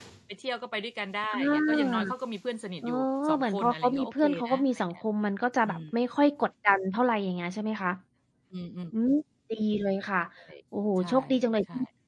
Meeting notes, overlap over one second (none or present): present